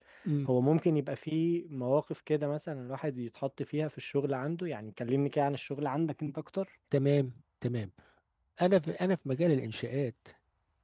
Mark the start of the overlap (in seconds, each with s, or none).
none